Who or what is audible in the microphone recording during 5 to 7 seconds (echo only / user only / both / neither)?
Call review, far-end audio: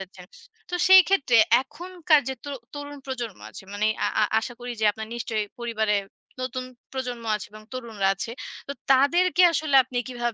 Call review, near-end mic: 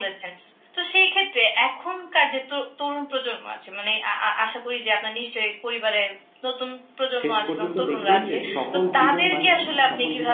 echo only